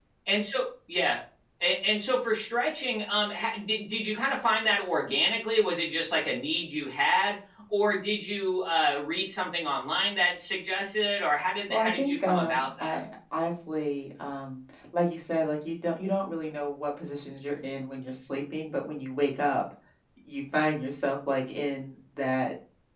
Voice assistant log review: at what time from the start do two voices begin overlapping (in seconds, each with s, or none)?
11.7 s